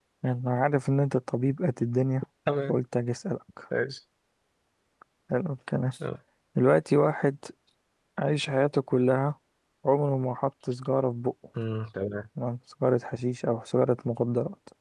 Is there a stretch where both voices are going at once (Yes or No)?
No